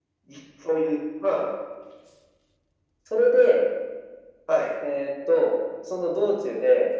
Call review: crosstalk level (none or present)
none